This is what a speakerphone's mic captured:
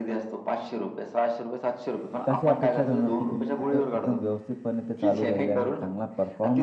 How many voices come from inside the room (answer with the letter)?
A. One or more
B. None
A